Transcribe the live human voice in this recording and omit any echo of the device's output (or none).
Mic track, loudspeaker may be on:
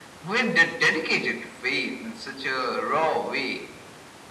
none